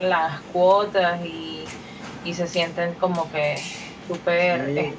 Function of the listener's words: taking over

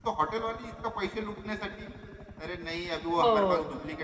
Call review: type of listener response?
listening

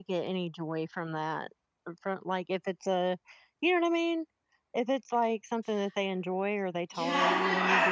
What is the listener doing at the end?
taking over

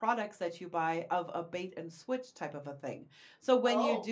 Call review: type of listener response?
listening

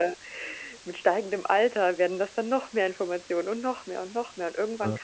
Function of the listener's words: listening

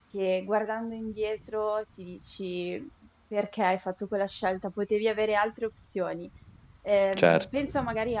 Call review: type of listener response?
listening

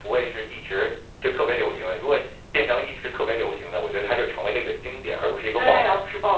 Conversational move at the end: taking over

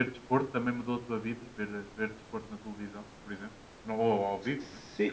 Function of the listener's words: taking over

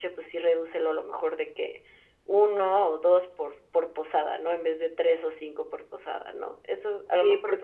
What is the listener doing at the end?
taking over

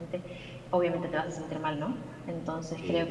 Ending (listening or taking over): listening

